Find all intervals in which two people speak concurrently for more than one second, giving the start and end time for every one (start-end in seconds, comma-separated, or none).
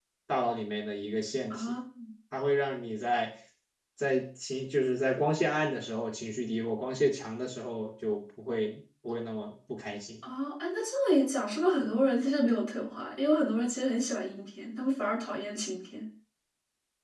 none